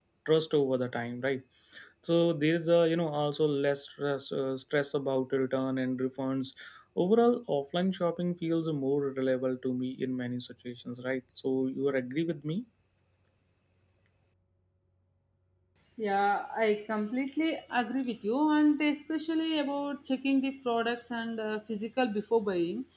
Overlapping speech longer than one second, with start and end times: none

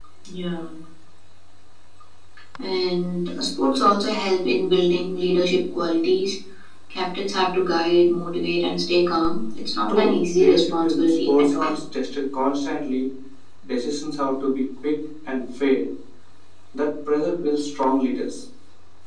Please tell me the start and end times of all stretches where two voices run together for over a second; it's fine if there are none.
9.9-11.8

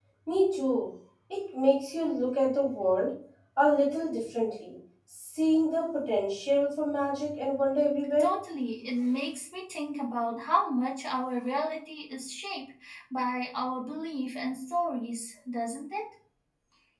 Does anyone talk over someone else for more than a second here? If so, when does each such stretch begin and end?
none

